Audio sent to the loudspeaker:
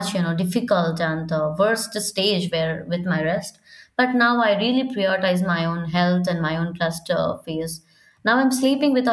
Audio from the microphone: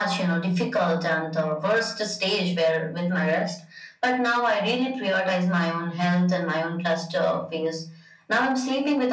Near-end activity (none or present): none